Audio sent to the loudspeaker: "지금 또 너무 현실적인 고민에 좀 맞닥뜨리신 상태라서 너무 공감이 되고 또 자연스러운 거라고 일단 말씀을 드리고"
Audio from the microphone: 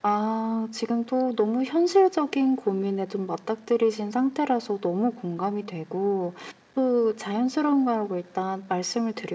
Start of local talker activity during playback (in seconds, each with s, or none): none